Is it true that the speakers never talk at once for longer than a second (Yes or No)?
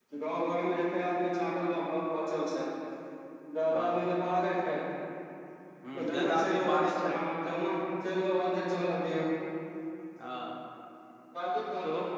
No